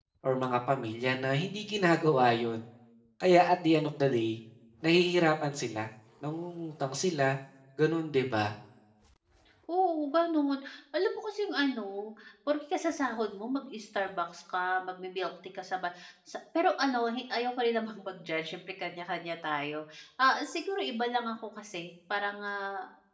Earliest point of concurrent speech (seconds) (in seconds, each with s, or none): none